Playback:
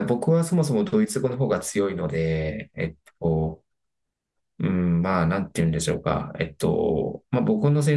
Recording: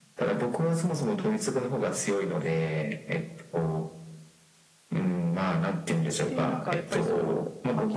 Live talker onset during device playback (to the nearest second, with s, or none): 6 s